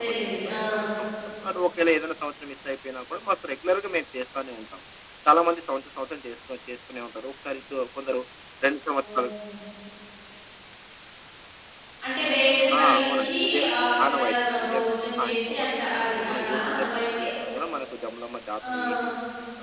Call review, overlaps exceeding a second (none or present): present